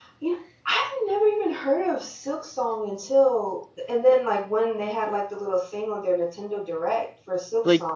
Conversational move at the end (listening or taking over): taking over